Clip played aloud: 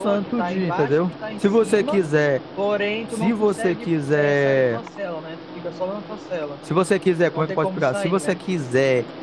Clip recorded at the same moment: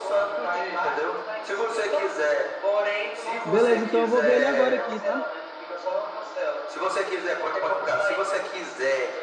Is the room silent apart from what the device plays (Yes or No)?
No